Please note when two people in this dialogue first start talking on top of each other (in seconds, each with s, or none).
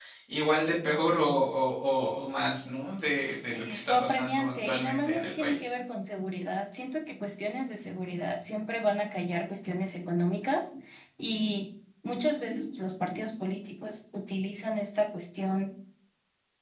3.2 s